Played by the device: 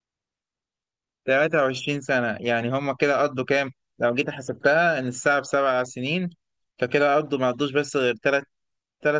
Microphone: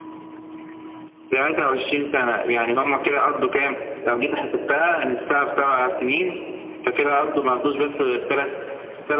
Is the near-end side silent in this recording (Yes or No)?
Yes